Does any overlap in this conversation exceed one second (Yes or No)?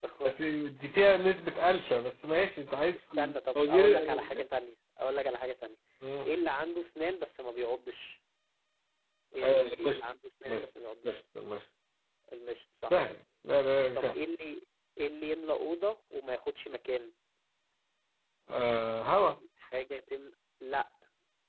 Yes